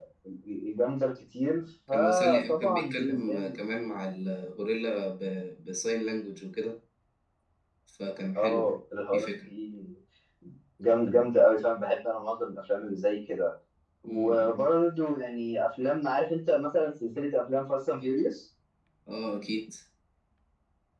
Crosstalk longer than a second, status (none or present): present